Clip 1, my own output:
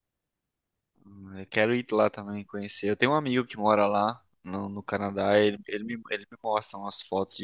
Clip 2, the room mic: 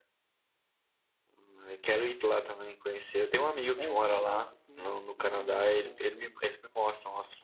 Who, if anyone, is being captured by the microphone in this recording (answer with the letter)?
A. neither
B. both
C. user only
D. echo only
B